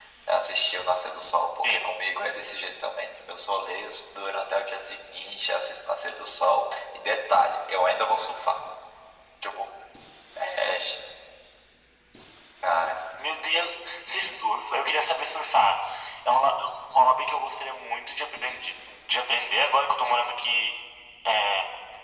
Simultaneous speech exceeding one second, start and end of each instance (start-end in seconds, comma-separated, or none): none